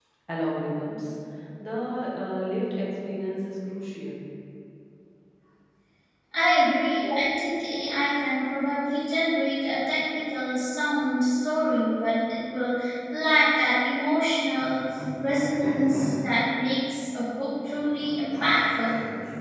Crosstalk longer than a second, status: none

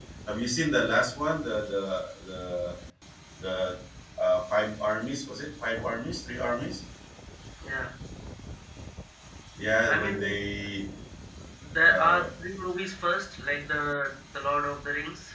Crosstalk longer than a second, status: none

